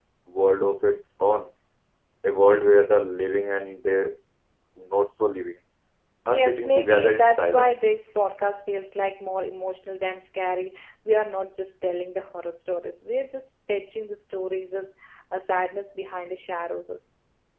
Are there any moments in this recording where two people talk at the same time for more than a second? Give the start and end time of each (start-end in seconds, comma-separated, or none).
6.3-7.8